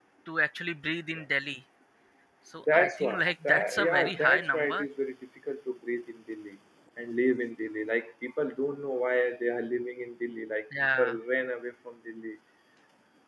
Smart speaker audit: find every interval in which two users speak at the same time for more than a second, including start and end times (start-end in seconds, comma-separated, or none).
2.7-4.9